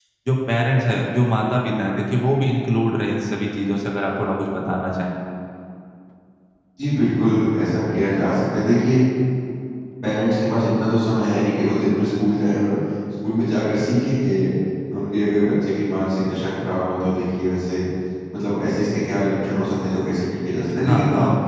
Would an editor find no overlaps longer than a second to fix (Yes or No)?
Yes